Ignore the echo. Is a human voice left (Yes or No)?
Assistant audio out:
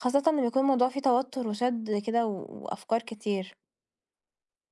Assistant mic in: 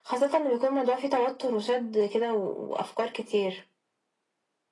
No